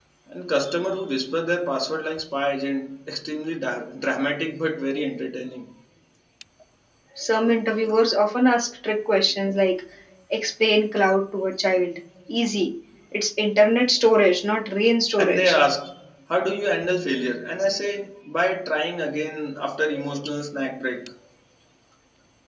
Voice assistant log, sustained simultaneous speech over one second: none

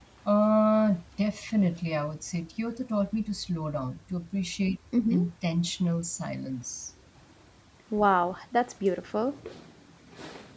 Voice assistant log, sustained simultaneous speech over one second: none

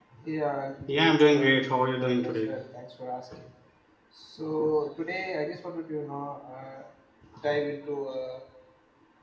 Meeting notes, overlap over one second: present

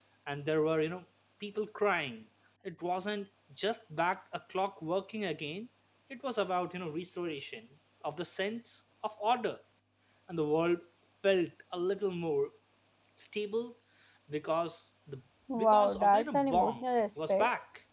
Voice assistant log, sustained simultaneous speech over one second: present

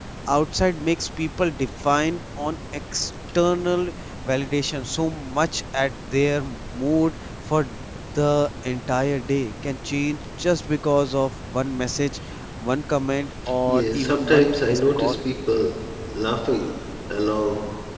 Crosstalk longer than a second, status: present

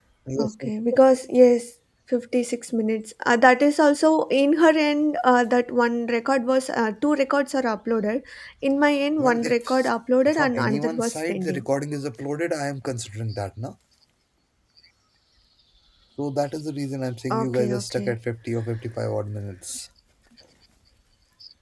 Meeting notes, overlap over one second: present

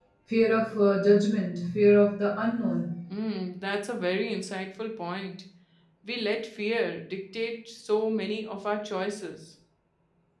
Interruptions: none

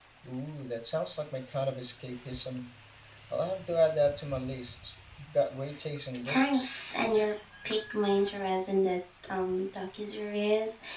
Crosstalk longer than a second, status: none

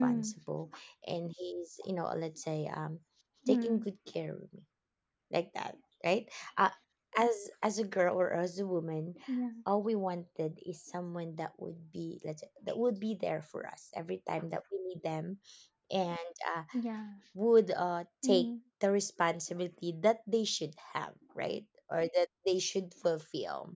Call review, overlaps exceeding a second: none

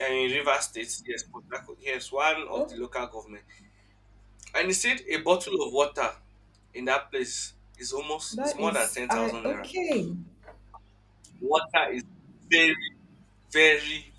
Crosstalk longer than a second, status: present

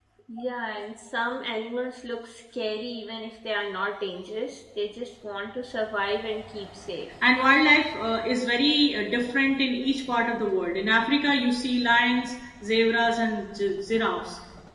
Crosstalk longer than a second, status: none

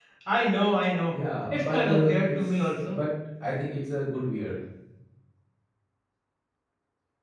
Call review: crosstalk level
present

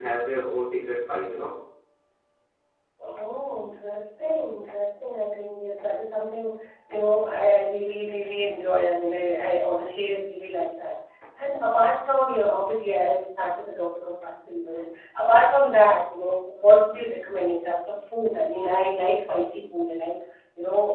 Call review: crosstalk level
none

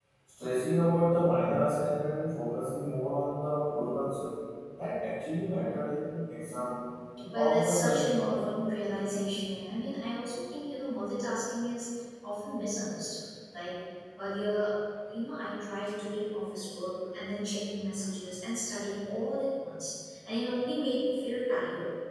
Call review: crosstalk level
present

